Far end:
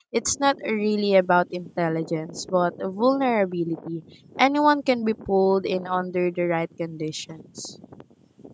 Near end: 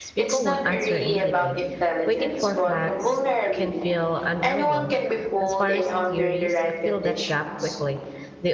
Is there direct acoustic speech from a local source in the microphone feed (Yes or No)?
Yes